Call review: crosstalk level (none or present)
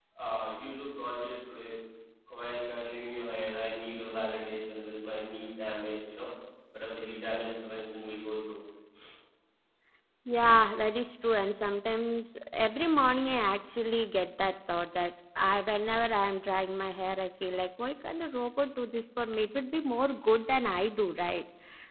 none